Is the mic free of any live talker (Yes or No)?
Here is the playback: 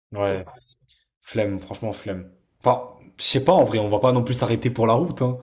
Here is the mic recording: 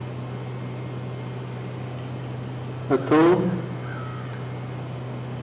No